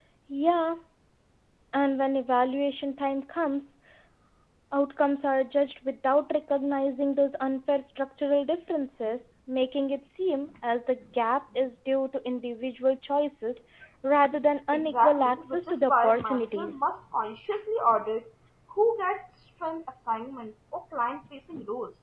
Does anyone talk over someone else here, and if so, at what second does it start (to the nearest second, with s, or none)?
15 s